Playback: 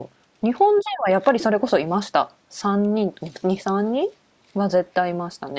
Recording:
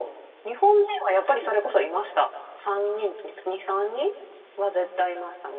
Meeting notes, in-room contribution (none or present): none